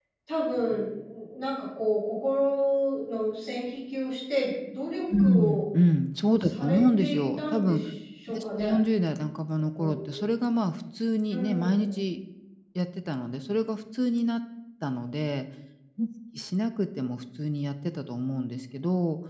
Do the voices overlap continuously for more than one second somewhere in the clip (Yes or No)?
Yes